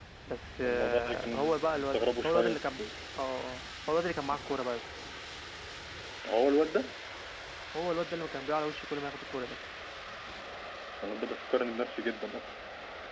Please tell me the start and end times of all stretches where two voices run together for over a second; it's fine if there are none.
0.6-2.8

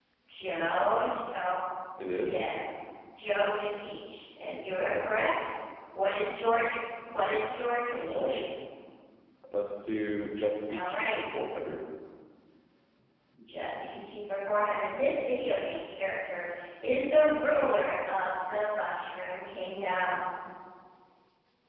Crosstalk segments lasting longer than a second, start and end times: none

